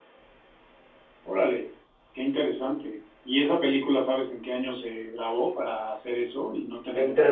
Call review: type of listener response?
taking over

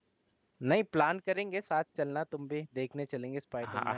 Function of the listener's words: taking over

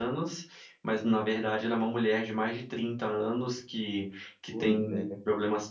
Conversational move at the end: listening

